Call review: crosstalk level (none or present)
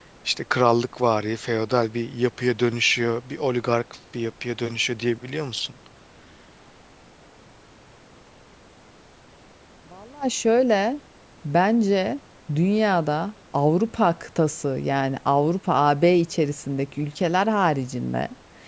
none